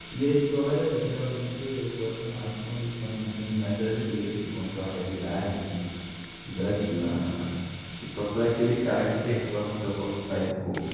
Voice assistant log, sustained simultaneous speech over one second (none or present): none